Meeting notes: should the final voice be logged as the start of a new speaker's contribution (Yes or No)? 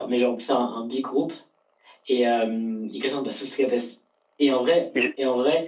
No